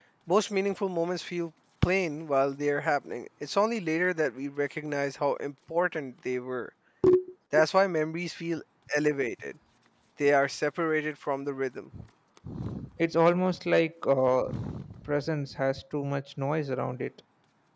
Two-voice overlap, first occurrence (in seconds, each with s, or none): none